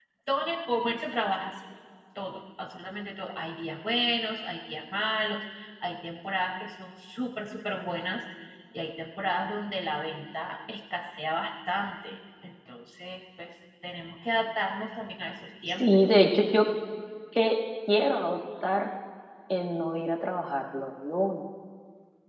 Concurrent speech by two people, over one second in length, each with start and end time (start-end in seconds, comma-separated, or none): none